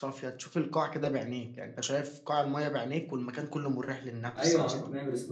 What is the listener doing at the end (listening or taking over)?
taking over